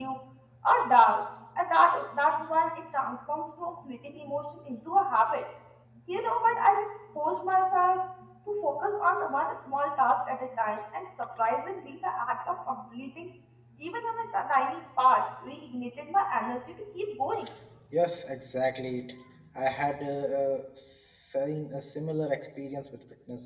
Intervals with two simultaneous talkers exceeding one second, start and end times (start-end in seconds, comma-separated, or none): none